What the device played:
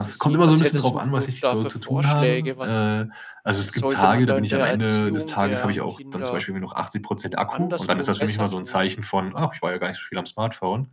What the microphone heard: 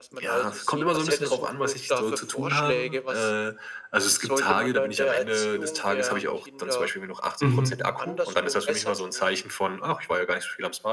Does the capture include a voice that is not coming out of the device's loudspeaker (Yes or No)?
Yes